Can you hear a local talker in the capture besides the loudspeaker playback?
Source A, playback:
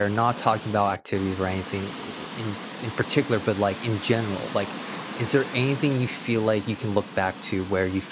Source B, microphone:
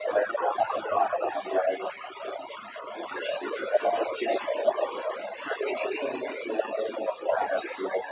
No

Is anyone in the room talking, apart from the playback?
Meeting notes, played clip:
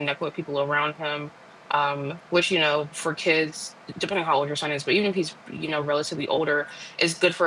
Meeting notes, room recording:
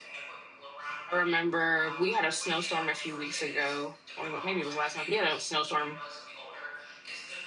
Yes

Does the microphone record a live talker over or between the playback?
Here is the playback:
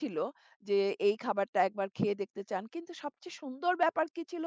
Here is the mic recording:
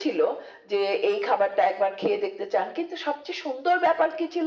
No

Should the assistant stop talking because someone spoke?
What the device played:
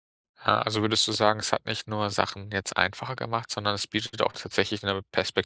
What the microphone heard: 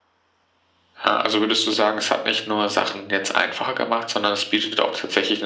No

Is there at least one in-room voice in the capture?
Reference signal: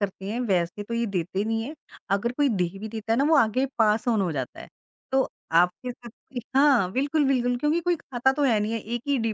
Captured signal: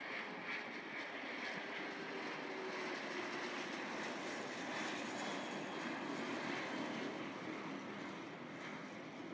No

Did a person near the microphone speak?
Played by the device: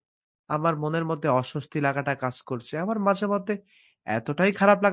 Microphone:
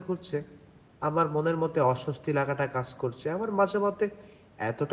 No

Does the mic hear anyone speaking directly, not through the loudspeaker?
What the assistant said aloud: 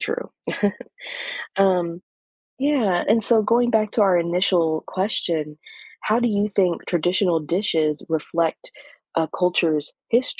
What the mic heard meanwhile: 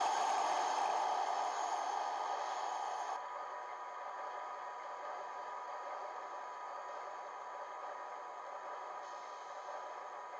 No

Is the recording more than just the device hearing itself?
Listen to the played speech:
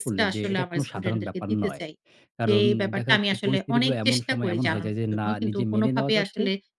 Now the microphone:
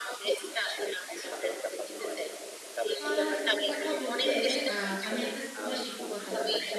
Yes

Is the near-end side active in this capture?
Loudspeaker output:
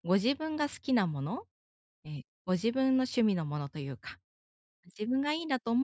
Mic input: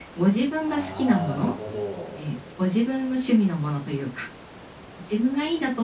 Yes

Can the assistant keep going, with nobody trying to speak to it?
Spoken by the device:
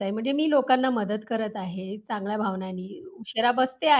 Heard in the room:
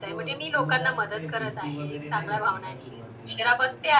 No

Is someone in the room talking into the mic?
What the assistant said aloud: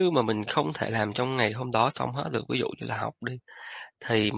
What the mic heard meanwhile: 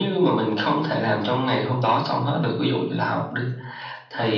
No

